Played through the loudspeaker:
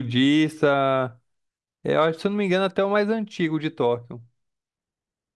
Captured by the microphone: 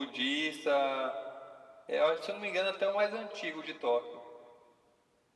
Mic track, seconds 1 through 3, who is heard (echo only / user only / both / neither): echo only